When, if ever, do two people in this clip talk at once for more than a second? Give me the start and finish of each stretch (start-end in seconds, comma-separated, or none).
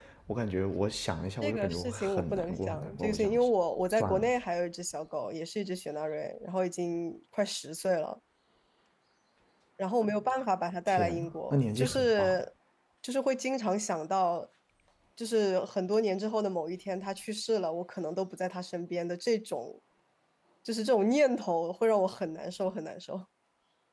1.4-3.3, 10.9-12.4